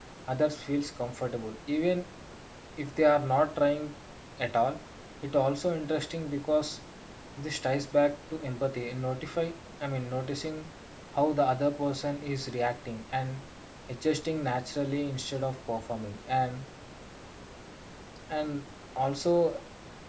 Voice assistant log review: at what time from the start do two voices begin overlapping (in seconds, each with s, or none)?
none